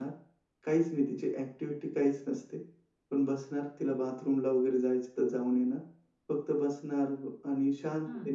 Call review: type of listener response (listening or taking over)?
listening